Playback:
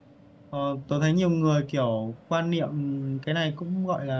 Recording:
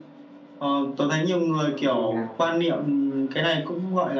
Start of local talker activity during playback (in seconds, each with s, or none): 1.7 s